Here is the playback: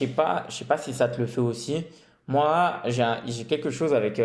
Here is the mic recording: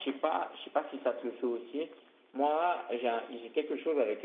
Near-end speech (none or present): none